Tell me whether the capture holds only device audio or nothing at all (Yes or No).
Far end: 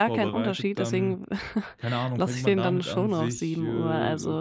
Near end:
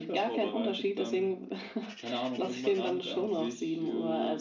Yes